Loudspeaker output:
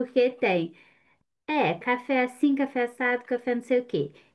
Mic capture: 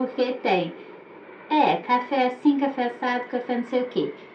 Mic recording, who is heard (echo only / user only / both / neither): echo only